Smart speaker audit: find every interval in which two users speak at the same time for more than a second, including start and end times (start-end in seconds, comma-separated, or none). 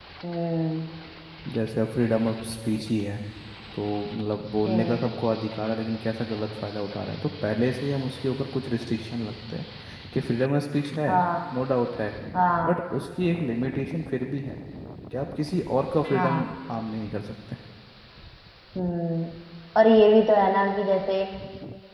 none